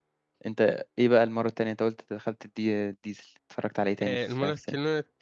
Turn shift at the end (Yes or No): Yes